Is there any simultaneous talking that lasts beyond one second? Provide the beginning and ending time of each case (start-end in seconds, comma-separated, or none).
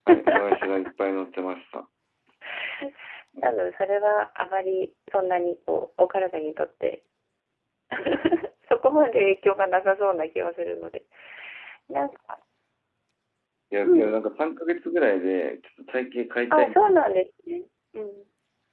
none